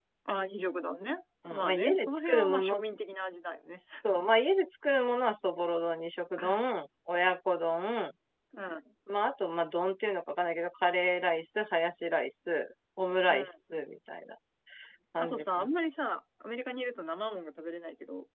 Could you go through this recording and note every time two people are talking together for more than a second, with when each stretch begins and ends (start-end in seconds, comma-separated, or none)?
1.5-2.8